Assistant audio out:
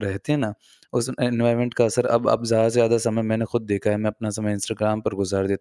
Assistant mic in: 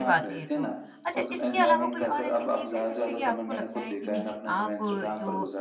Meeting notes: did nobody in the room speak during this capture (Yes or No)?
No